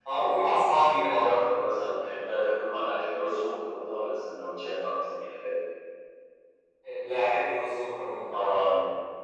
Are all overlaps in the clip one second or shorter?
Yes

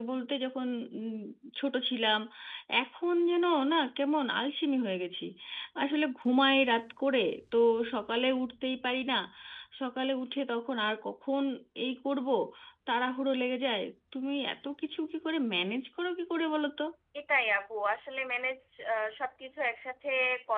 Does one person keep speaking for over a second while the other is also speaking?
No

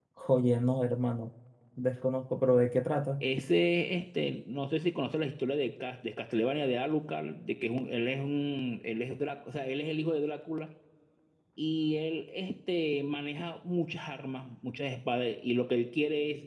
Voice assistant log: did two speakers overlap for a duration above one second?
No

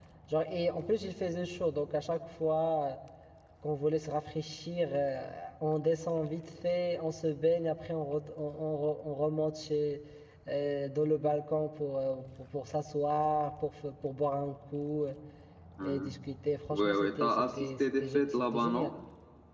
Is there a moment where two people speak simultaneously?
Yes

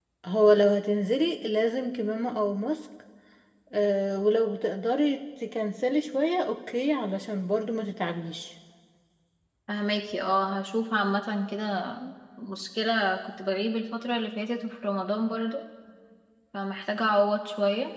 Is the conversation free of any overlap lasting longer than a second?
Yes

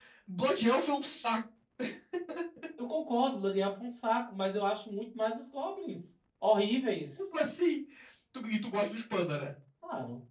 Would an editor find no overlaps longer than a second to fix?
Yes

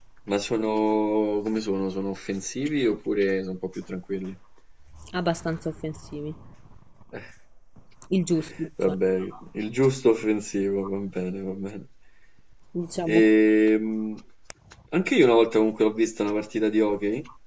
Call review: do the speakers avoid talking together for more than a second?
Yes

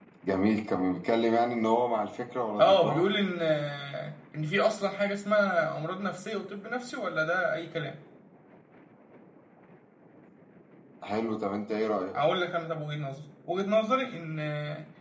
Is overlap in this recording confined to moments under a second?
Yes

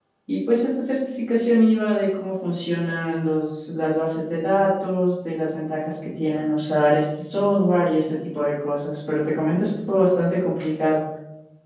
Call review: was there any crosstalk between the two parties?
No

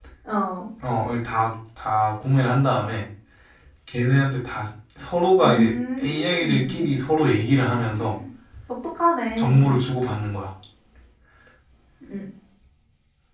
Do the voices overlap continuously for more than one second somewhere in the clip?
Yes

